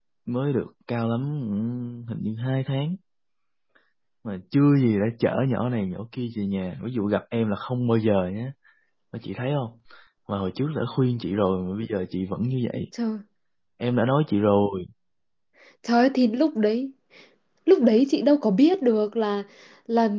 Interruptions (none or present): none